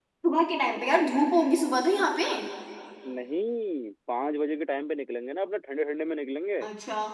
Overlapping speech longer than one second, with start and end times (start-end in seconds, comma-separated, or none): none